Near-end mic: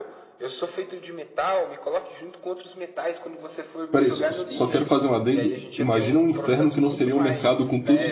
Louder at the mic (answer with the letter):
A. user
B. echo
A